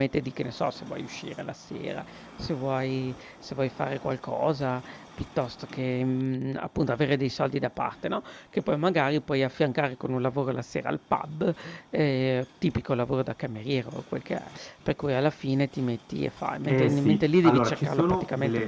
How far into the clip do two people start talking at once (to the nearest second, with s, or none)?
17 s